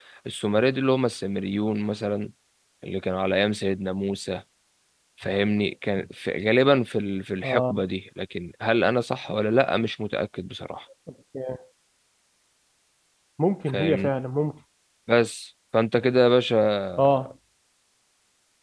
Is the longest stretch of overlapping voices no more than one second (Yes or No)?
Yes